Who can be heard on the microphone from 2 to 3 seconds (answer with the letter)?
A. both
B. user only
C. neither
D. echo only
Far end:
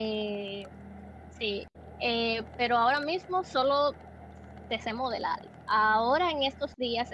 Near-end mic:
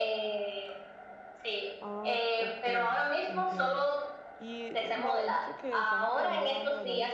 A